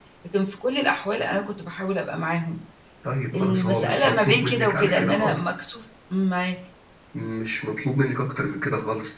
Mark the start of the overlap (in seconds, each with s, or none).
3.4 s